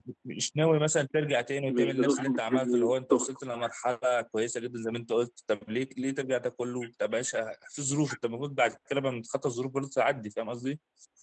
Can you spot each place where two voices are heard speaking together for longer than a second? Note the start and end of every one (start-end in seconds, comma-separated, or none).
1.7-3.3